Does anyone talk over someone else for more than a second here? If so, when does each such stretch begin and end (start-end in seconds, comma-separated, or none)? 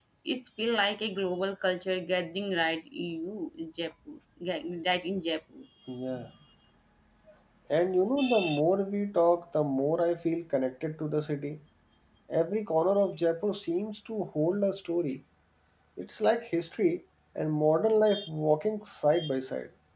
none